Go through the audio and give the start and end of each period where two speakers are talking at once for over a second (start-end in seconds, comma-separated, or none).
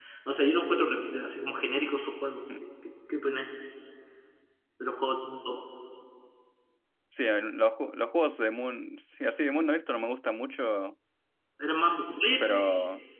none